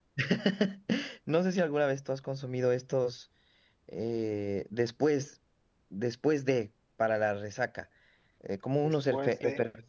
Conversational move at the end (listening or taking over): listening